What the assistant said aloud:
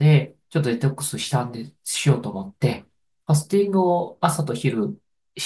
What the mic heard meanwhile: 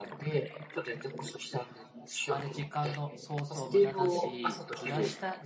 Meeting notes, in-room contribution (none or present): present